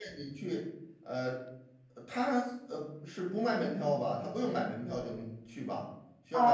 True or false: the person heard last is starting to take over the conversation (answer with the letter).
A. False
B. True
B